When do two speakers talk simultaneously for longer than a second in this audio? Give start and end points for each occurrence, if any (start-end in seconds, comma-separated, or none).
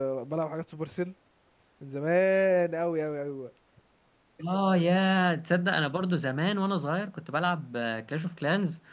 none